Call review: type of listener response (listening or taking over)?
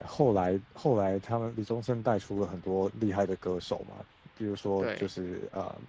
listening